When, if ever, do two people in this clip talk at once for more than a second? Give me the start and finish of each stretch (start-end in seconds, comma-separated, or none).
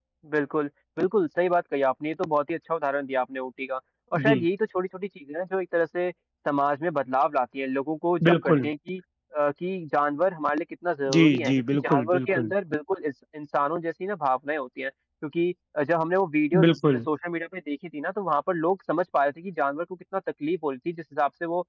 11.1-12.5